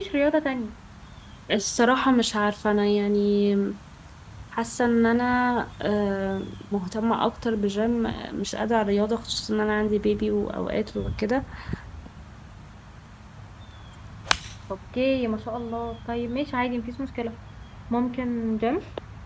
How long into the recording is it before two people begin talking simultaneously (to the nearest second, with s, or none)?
none